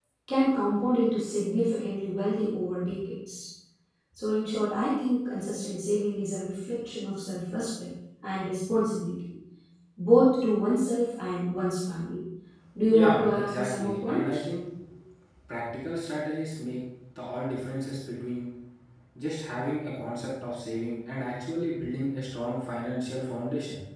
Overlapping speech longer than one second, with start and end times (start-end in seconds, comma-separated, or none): 12.9-14.4